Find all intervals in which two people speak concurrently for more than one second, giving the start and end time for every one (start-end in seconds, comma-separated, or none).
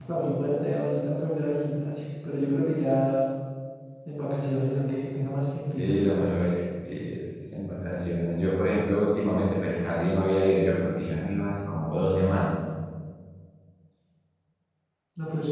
none